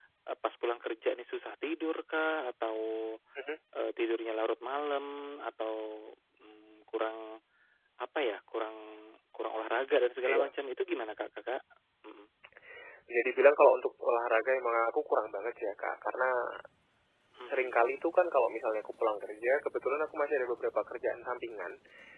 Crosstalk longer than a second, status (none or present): none